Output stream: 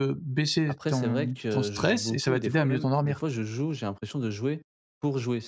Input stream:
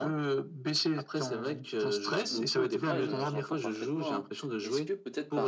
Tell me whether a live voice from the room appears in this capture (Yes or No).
Yes